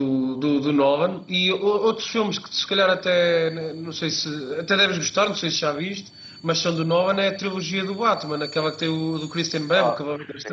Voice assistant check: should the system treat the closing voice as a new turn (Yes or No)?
Yes